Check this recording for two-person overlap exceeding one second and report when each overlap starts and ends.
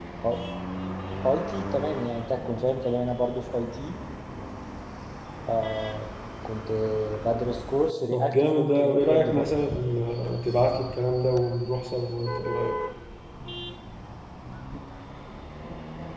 8.1-9.7

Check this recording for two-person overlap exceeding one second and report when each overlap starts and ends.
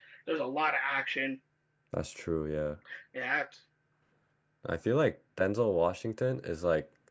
none

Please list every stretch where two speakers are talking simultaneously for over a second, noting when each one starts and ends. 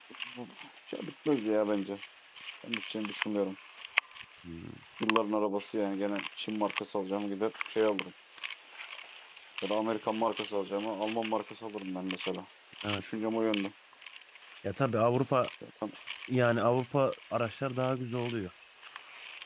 none

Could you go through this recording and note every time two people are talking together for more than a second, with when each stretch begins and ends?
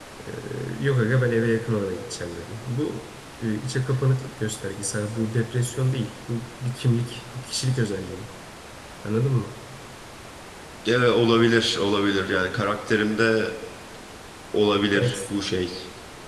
none

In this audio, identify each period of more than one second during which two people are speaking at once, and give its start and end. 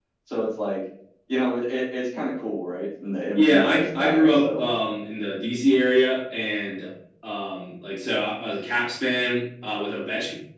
3.4-4.6

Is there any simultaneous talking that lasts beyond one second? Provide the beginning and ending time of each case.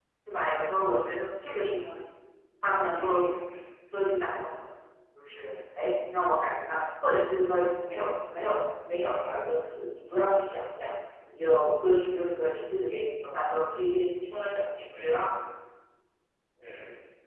none

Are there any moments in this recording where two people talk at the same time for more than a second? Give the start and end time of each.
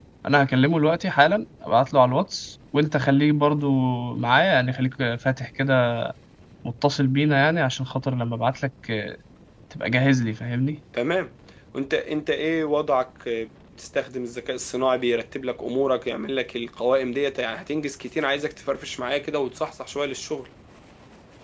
none

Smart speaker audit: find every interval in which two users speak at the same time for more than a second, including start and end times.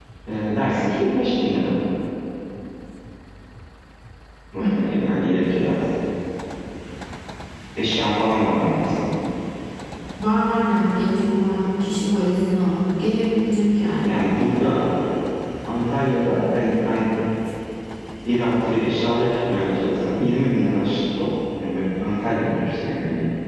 none

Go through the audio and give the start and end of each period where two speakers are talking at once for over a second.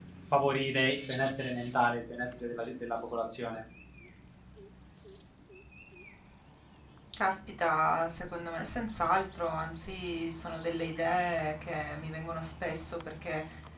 none

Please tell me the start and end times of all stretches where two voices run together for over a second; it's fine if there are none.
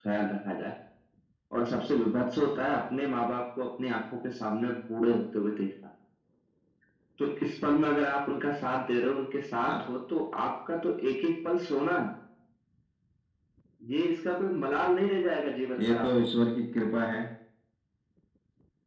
none

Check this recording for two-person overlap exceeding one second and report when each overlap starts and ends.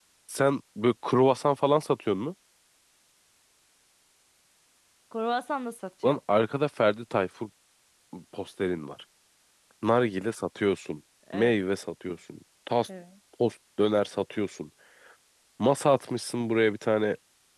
none

